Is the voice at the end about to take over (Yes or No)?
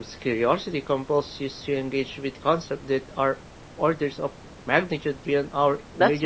Yes